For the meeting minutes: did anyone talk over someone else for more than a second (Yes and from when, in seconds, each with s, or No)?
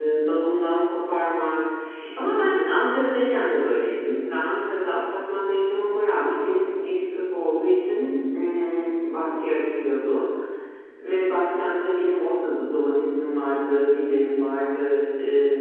No